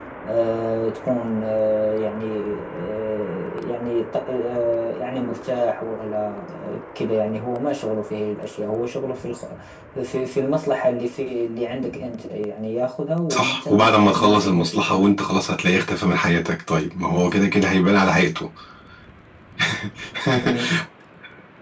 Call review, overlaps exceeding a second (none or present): present